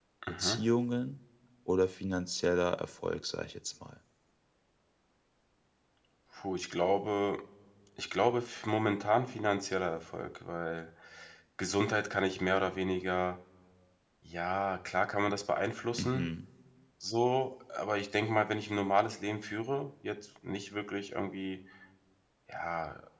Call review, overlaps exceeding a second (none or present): none